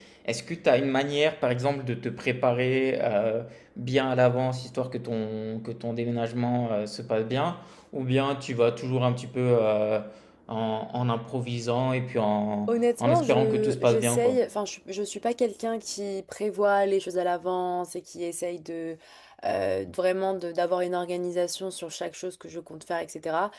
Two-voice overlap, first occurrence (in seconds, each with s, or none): 12.7 s